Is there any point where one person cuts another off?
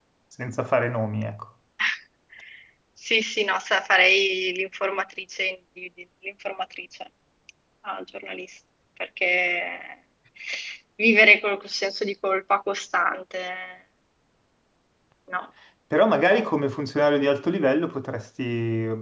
No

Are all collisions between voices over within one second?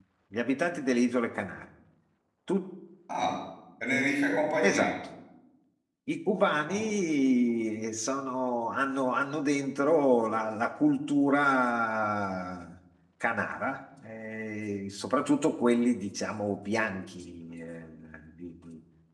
Yes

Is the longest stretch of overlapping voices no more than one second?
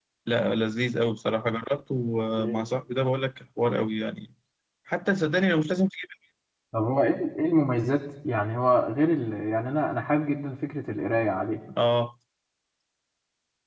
Yes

